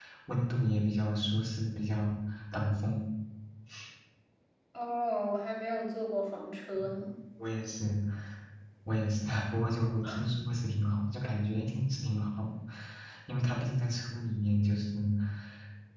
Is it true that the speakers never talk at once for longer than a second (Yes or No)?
Yes